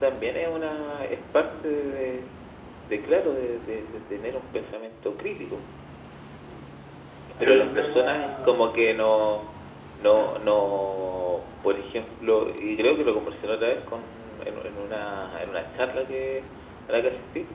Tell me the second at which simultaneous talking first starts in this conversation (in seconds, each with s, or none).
7.4 s